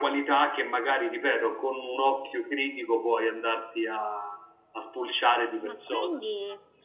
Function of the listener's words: taking over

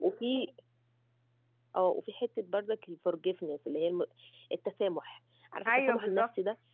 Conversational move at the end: listening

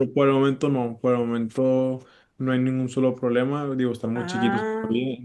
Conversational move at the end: listening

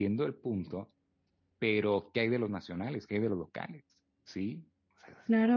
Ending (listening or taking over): taking over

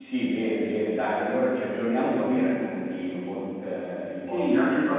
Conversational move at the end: taking over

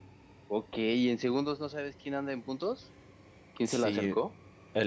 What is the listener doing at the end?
taking over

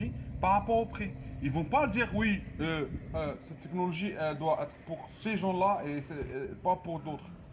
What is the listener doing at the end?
listening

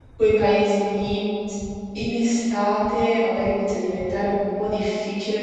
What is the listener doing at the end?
listening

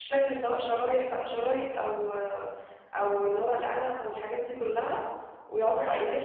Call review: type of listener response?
listening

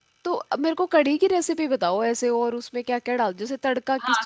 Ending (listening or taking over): taking over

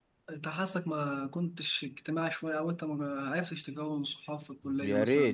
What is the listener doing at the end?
taking over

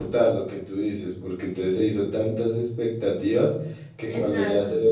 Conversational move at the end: listening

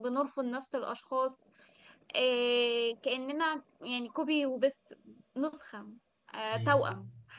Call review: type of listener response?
listening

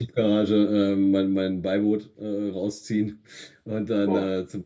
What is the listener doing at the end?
listening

